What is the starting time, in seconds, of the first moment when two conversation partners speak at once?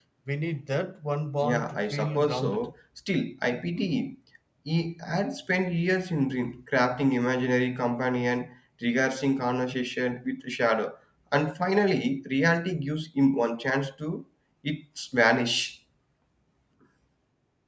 1.4 s

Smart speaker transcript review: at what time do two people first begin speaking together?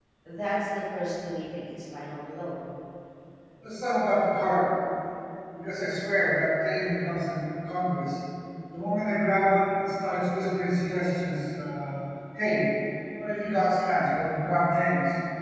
none

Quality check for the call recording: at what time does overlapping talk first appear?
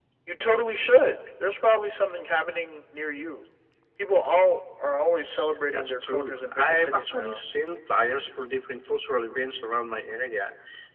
5.7 s

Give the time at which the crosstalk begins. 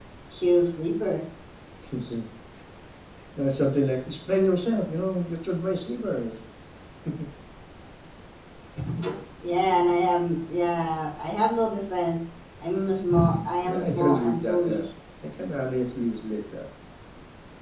13.6 s

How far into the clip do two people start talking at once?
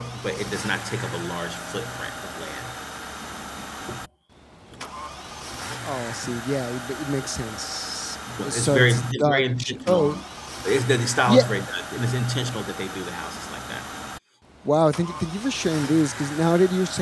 8.3 s

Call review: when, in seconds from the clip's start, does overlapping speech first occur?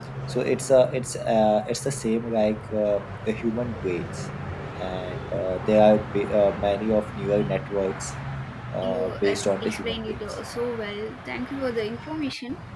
8.8 s

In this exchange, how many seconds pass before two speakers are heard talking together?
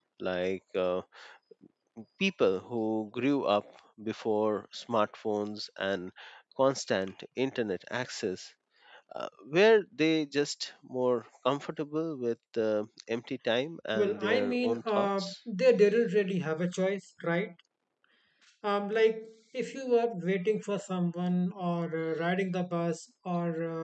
13.9 s

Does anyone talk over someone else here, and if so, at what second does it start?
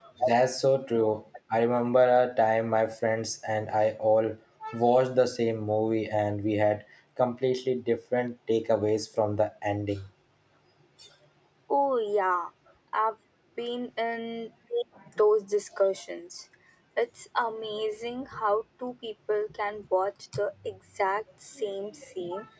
none

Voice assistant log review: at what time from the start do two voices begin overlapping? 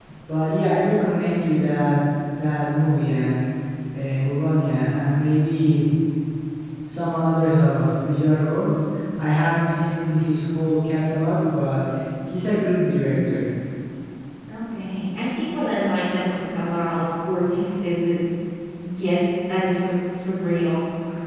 none

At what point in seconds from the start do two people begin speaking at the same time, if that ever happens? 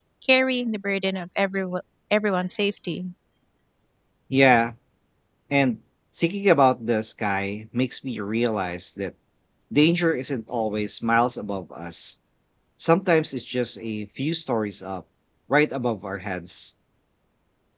none

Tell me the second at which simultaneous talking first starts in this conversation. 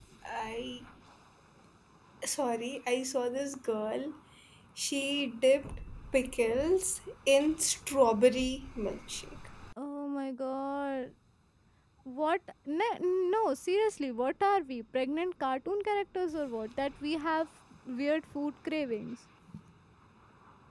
none

